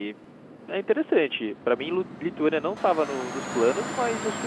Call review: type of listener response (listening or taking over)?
listening